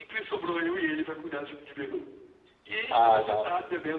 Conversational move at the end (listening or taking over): listening